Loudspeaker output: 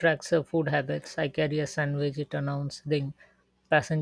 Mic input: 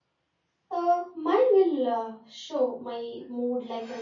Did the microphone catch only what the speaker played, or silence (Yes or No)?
No